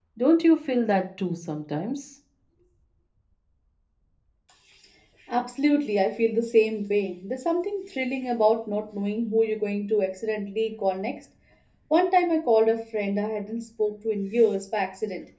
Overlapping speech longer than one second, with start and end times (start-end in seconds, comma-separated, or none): none